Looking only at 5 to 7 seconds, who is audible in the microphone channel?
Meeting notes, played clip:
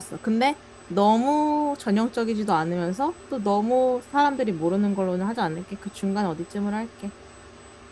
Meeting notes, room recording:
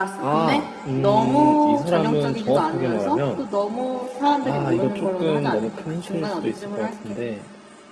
both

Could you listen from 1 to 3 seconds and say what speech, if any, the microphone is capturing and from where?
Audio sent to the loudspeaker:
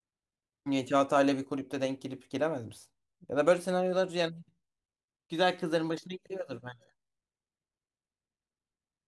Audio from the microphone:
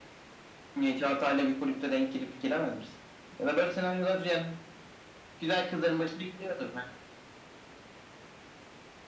echo only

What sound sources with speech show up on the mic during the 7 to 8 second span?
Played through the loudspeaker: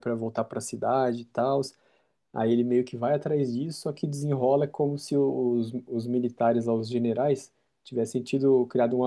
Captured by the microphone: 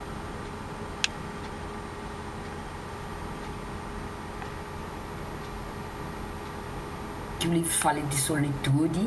user only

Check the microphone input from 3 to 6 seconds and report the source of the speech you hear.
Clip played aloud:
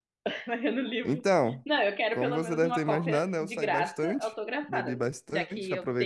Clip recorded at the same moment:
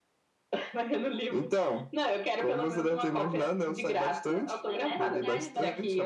both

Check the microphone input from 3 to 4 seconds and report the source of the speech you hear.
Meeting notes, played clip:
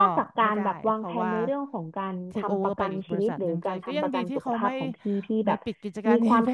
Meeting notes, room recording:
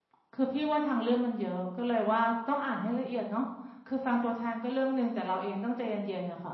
user only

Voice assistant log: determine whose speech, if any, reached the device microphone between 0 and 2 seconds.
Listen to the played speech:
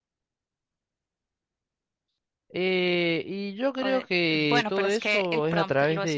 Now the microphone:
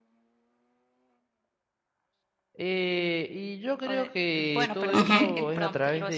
neither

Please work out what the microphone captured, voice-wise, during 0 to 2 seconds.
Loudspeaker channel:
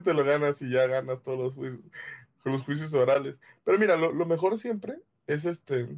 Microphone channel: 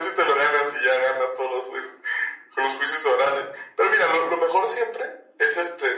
echo only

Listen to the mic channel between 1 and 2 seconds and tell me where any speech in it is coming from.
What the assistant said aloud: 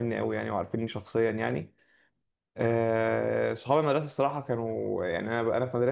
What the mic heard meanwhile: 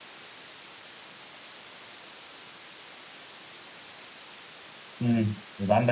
neither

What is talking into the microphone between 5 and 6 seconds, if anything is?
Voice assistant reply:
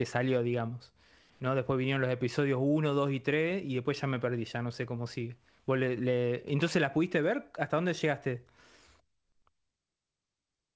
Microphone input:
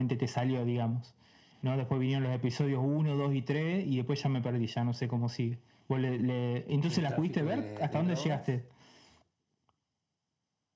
echo only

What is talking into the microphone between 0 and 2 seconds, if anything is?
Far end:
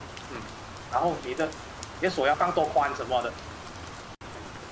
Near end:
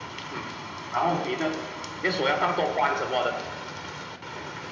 echo only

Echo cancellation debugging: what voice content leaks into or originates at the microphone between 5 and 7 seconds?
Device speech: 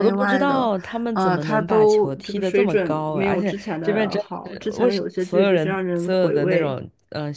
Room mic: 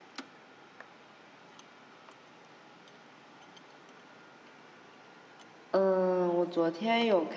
user only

